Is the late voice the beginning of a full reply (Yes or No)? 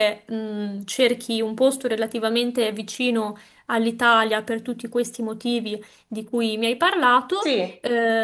No